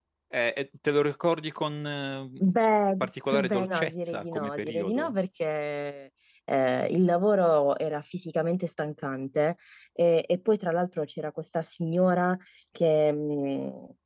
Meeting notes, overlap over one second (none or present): present